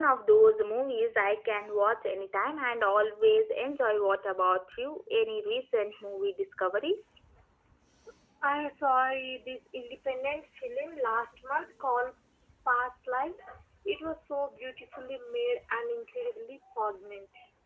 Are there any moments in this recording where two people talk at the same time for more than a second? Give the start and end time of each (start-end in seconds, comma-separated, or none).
none